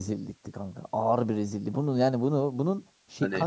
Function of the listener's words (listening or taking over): listening